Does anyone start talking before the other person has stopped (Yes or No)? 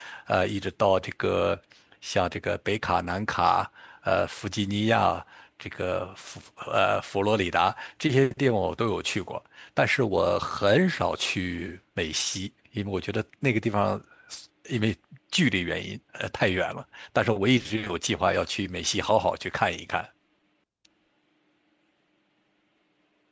No